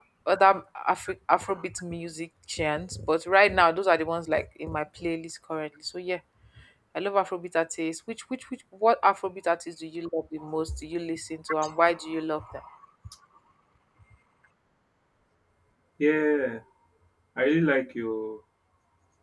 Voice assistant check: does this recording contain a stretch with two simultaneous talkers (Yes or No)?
No